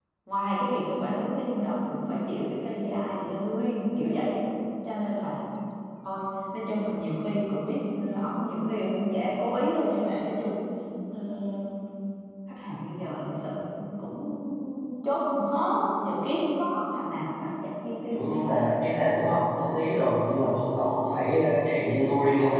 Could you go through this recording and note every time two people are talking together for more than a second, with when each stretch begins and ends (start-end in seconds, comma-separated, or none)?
none